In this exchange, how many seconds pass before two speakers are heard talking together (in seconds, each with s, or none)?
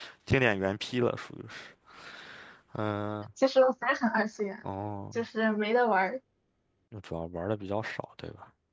none